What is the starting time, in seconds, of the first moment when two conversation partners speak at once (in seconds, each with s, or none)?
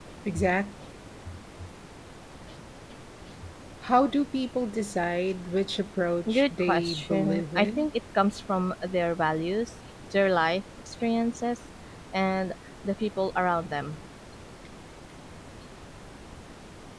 6.3 s